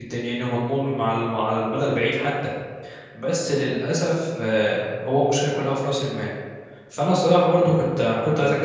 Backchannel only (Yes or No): Yes